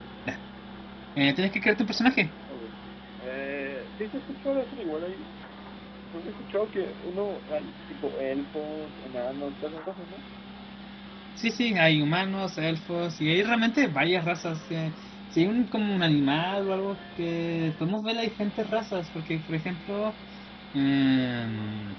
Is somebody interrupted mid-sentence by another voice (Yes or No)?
No